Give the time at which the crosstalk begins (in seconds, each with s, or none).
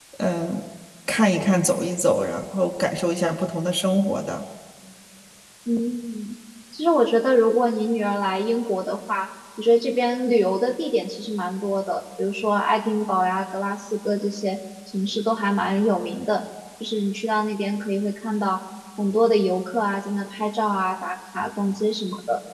none